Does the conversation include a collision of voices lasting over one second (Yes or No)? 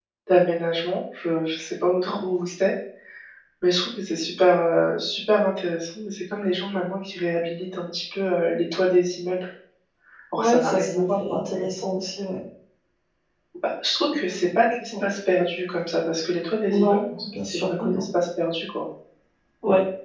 Yes